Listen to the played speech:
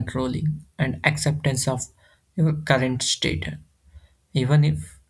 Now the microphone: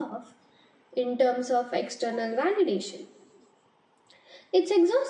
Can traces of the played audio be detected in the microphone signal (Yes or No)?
No